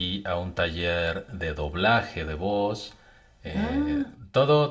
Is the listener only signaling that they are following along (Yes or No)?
Yes